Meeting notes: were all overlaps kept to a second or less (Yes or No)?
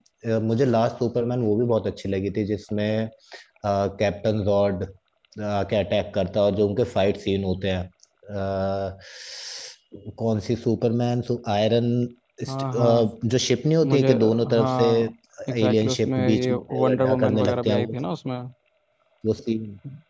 No